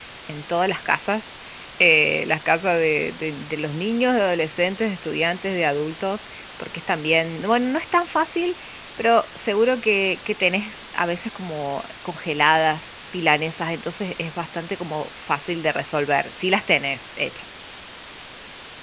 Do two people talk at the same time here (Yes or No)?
No